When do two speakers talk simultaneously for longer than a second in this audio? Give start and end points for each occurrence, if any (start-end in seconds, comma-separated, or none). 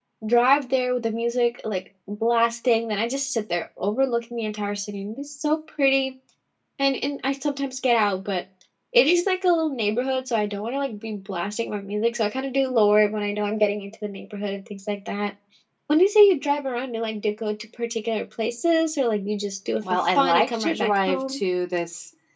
19.8-21.4